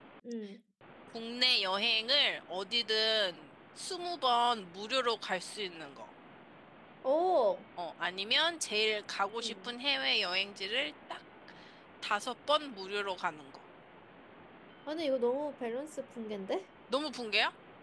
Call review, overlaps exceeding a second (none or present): none